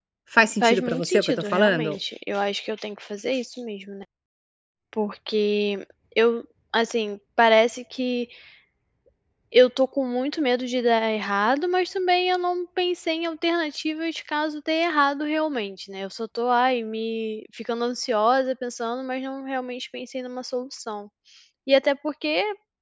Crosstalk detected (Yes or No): Yes